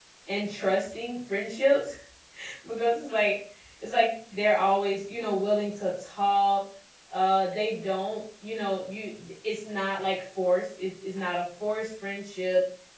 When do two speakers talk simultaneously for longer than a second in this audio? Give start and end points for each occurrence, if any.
none

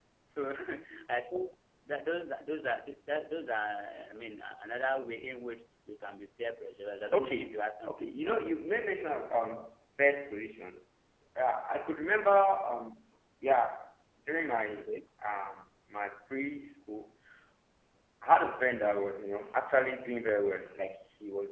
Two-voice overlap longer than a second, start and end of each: 7.1-8.4

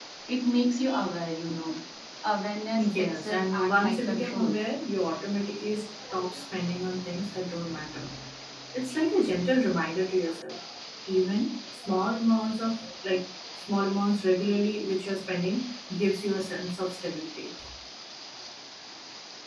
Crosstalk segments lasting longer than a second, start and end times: 3.0-4.5

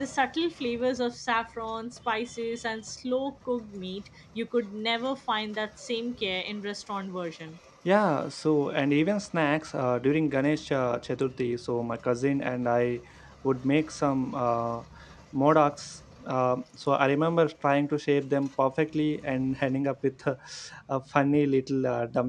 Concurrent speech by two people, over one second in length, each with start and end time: none

